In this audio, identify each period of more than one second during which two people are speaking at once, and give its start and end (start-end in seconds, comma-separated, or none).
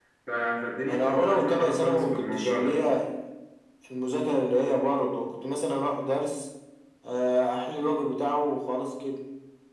0.9-2.8